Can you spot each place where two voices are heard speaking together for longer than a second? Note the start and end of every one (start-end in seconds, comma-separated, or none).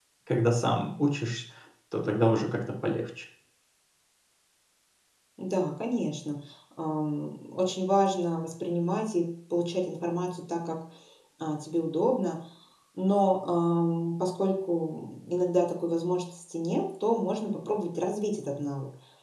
none